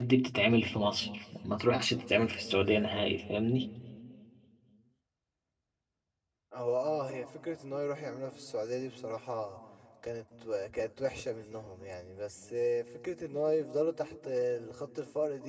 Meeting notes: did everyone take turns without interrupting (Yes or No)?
Yes